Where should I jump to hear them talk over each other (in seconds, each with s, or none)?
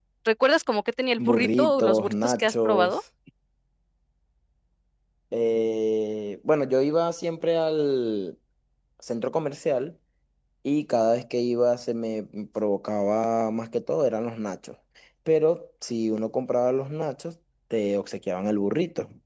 1.3 s